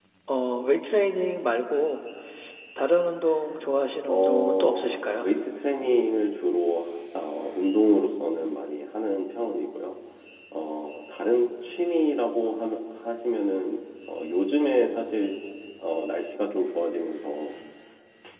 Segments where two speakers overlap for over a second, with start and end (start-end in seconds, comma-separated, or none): 4.0-5.3